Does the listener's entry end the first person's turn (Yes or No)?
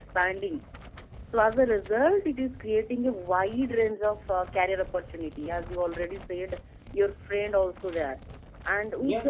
No